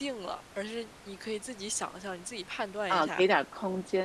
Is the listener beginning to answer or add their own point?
Yes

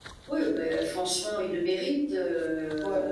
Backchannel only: No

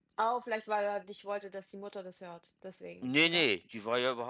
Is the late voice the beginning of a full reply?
Yes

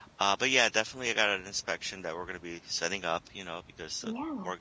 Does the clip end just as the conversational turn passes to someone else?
No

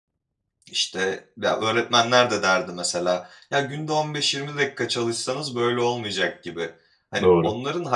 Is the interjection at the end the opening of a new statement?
No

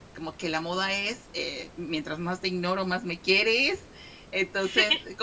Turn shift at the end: No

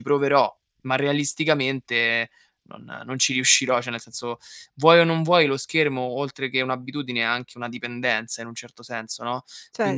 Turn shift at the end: Yes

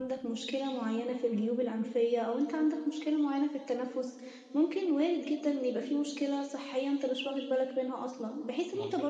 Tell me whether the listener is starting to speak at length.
No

